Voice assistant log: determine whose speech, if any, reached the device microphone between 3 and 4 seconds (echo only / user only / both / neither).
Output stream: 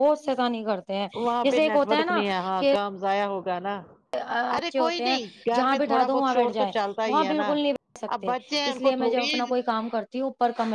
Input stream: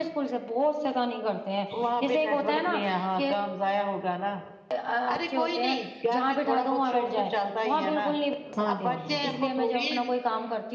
echo only